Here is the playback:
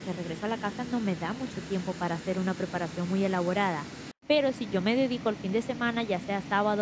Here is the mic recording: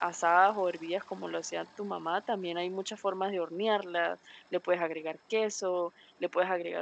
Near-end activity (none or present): present